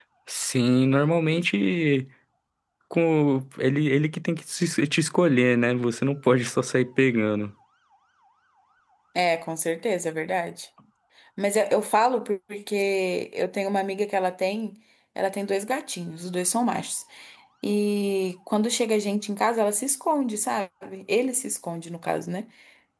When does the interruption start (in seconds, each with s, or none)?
none